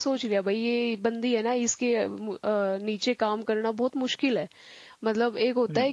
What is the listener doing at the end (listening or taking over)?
listening